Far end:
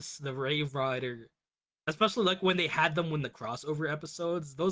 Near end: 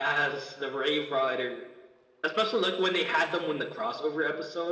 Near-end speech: none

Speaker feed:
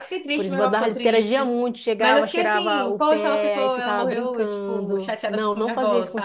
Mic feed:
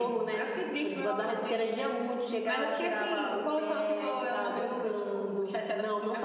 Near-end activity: none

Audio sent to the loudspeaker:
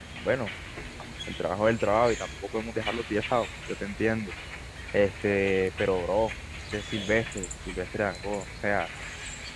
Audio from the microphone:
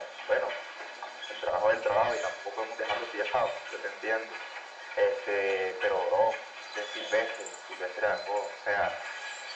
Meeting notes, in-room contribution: none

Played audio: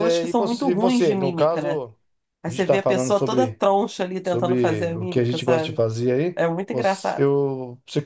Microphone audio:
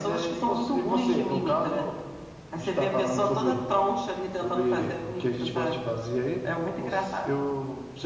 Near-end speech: none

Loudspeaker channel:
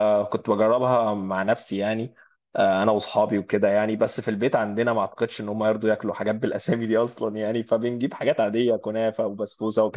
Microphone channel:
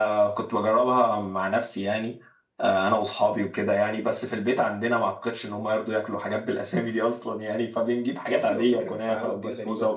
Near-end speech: present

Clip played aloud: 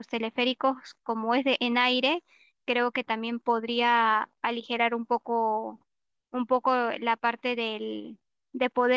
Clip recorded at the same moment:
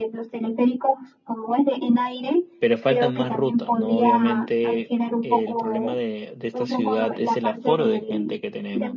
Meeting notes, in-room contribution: present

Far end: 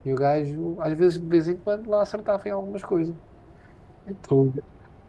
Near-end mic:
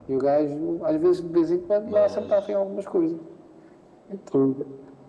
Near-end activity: present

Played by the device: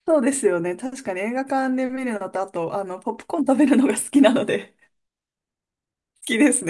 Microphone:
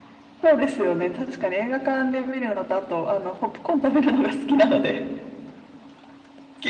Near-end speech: none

